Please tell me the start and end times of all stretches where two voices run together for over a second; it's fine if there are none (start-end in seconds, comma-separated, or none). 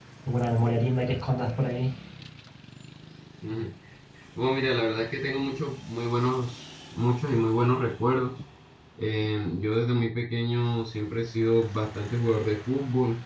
none